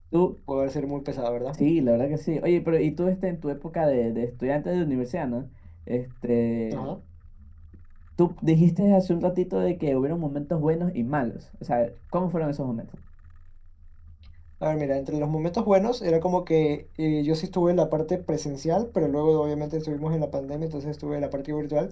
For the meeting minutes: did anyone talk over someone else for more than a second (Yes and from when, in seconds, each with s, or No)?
No